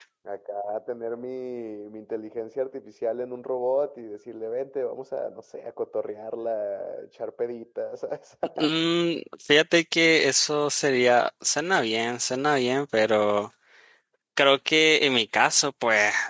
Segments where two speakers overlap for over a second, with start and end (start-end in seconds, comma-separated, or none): none